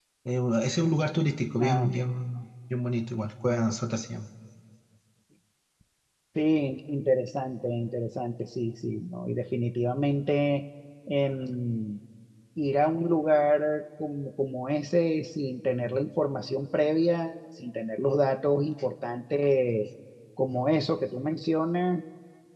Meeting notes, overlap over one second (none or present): none